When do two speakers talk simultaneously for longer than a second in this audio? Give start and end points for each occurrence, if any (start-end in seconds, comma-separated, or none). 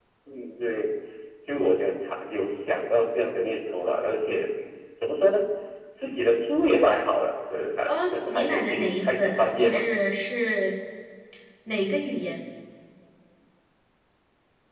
7.9-9.8